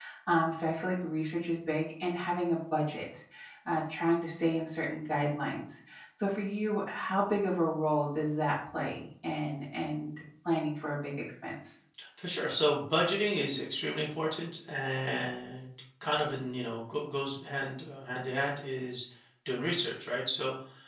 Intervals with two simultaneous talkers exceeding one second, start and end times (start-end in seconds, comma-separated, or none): none